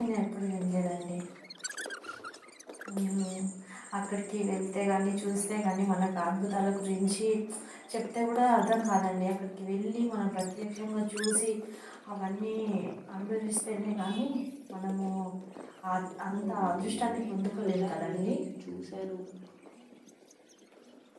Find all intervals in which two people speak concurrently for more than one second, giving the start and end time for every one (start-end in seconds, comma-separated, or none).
16.4-18.3